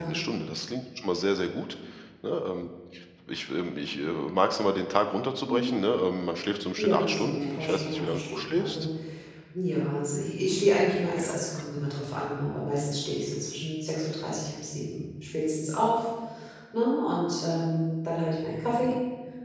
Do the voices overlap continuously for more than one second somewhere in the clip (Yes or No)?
Yes